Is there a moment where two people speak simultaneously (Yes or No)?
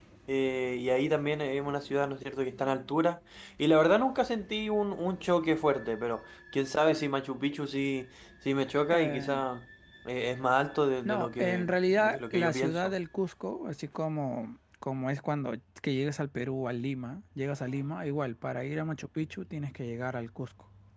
Yes